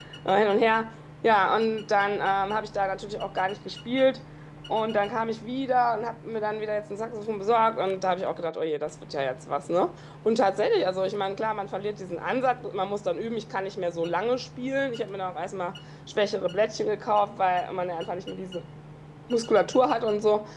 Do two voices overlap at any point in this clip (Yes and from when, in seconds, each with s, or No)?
No